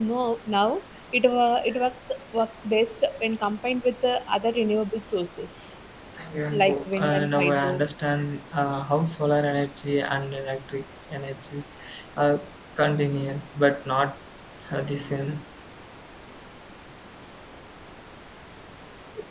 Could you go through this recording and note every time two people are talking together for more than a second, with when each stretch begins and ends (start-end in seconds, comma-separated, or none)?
6.5-7.8